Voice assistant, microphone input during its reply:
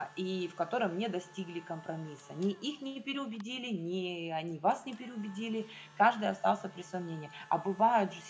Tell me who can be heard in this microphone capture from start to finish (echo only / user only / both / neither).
user only